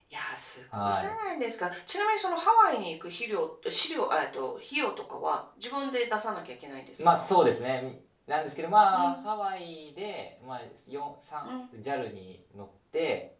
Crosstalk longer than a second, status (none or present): none